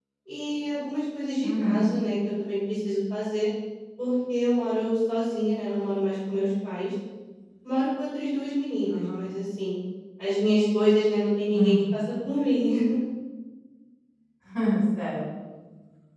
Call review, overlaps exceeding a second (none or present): none